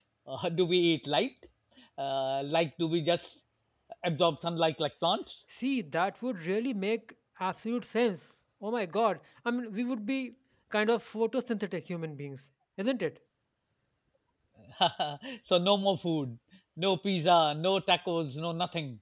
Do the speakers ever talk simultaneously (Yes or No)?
No